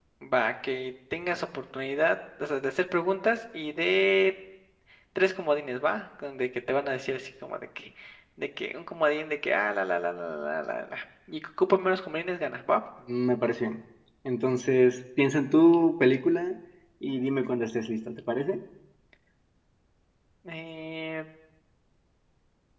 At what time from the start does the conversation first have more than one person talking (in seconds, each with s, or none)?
none